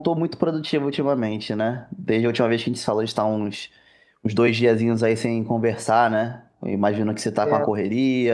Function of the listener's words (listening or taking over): listening